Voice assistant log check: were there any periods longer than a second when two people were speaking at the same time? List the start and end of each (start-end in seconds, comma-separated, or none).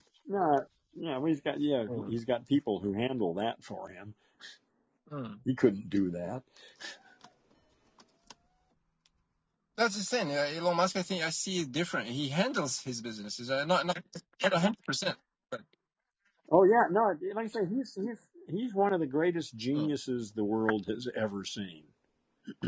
none